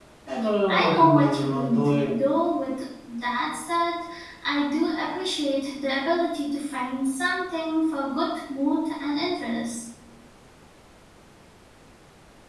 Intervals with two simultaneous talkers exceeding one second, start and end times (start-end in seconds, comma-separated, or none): 0.7-1.9